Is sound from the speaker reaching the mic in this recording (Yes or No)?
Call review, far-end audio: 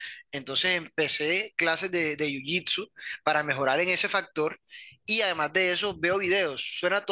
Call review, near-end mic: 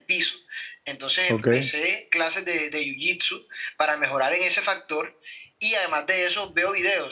Yes